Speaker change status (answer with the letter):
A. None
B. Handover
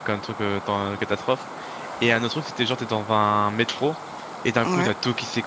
A